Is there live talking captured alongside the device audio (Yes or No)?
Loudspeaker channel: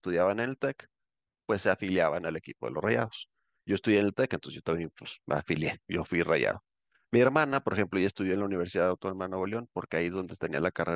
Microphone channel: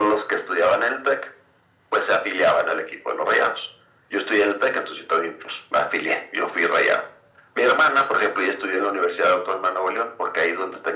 No